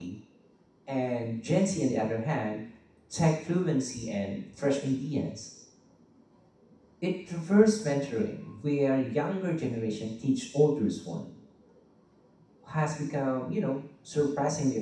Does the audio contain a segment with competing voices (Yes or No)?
No